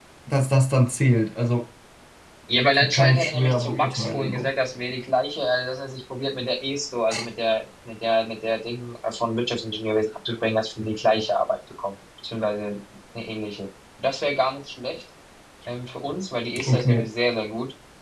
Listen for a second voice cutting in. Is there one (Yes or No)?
Yes